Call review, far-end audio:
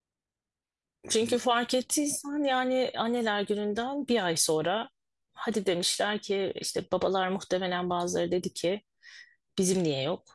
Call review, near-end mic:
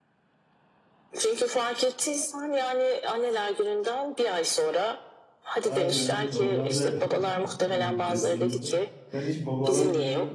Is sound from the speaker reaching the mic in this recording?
Yes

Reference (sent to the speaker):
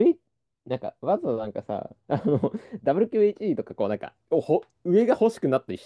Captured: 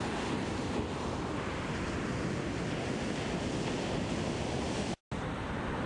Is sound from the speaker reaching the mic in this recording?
No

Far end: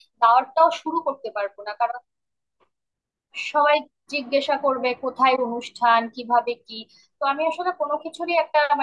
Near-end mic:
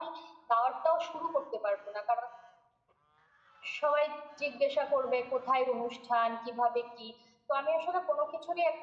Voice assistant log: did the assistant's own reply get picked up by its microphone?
Yes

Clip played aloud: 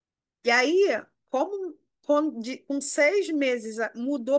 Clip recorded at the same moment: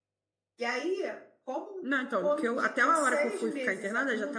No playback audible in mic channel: No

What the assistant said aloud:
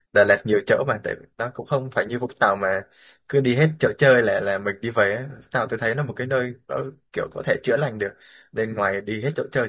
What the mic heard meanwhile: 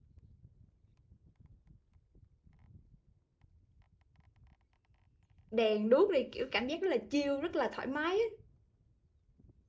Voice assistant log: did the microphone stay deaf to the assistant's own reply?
Yes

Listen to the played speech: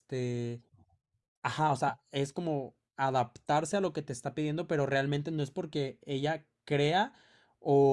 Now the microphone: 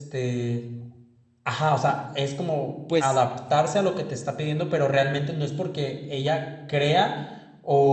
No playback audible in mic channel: No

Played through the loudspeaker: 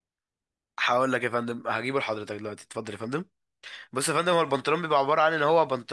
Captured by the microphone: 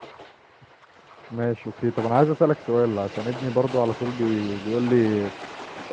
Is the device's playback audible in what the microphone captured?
No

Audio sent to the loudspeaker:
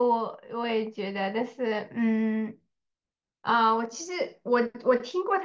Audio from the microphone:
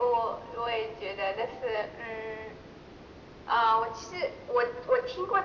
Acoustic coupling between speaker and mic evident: Yes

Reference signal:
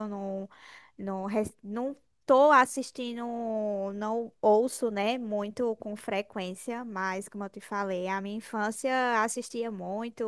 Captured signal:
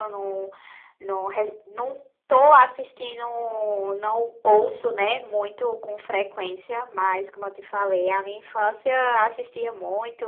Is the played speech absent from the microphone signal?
No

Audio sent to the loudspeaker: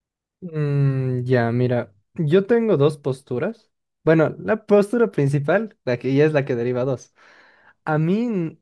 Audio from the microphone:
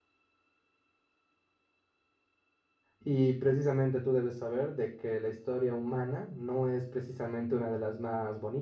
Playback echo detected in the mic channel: No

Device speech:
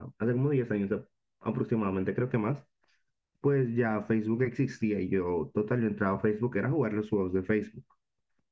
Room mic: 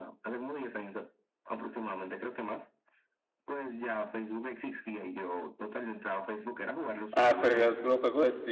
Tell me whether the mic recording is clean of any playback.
No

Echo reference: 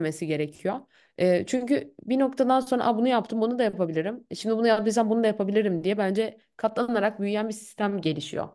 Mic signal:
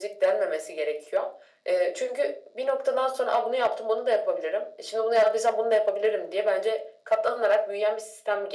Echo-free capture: No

